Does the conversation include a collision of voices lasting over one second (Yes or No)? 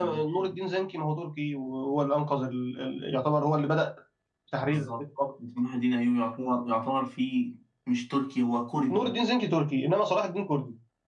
No